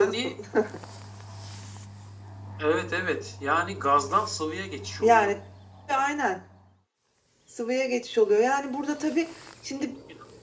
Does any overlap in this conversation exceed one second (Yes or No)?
No